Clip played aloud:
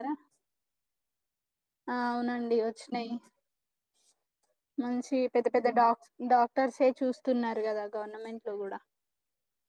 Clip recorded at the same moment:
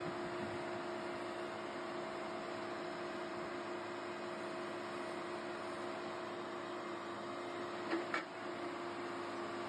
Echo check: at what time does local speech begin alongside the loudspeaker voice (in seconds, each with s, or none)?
none